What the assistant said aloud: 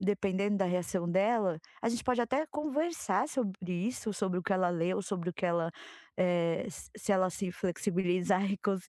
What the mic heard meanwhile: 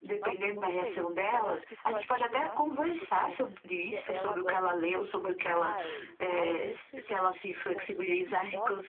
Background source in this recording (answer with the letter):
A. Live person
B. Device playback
A